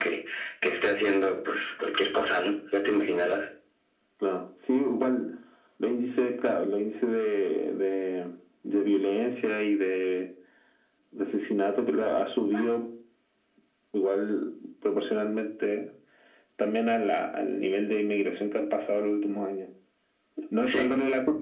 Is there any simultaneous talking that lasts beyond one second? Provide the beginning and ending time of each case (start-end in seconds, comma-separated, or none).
none